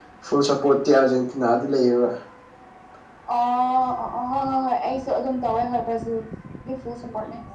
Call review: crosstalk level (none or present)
none